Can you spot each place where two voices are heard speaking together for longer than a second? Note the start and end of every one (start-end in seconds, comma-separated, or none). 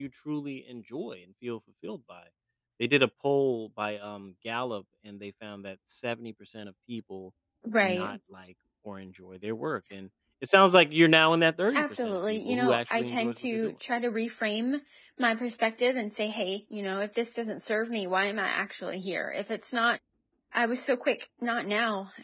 11.8-13.7